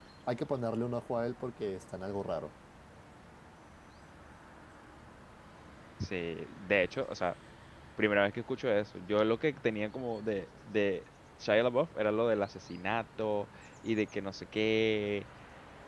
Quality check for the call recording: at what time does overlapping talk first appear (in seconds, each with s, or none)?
none